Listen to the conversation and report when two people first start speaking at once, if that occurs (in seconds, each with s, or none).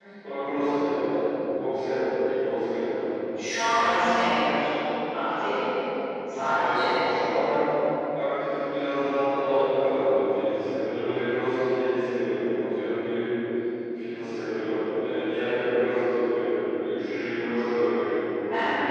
none